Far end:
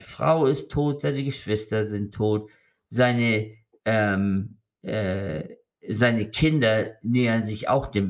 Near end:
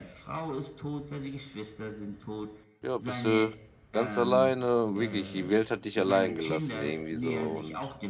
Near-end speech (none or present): present